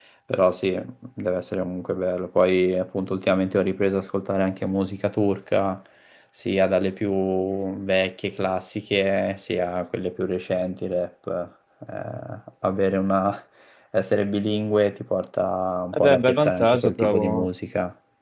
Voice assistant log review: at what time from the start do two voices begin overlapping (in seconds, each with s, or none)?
15.9 s